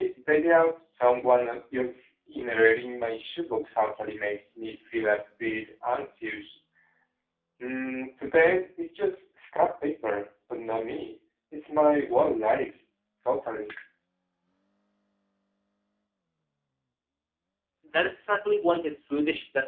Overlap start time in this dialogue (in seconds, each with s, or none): none